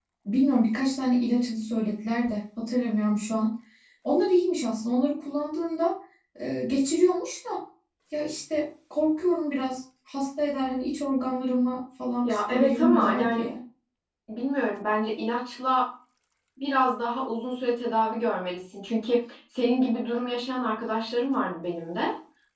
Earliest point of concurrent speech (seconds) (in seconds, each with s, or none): 12.2 s